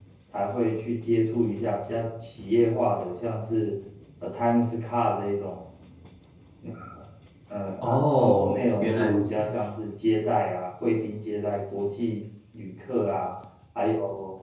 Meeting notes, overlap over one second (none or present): present